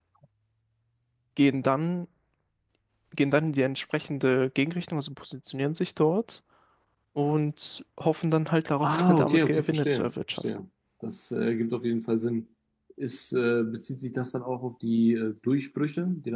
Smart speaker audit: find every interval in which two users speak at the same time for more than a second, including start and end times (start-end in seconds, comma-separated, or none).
8.8-10.4